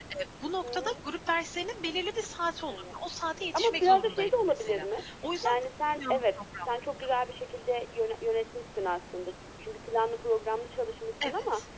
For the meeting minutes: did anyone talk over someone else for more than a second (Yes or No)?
Yes